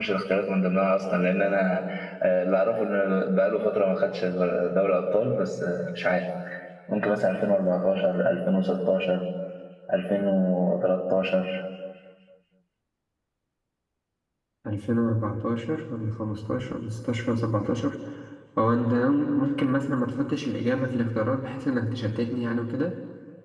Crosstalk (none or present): none